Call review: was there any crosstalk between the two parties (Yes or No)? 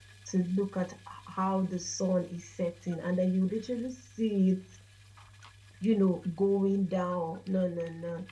No